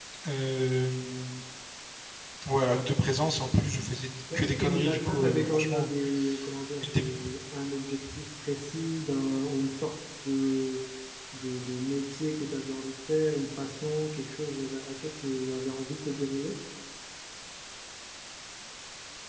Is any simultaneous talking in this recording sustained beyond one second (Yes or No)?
Yes